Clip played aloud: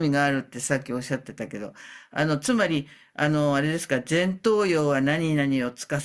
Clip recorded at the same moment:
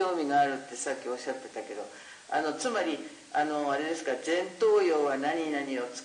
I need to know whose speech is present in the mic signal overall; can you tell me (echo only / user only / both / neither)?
echo only